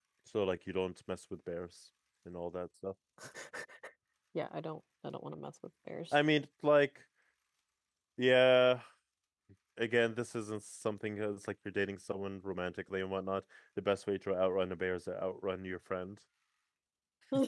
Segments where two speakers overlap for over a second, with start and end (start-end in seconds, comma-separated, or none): none